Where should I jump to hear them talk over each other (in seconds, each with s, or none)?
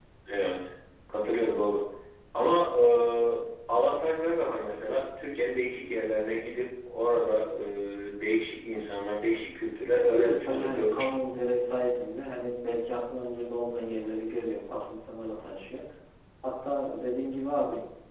9.9 s